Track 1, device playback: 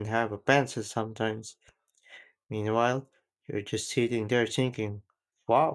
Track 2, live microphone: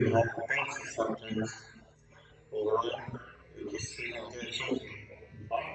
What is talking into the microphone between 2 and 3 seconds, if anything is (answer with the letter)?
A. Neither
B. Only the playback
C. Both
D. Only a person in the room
B